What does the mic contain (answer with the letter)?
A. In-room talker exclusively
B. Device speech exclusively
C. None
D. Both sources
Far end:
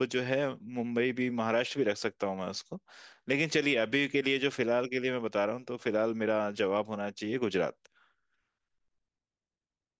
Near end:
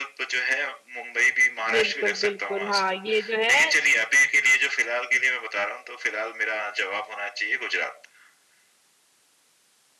D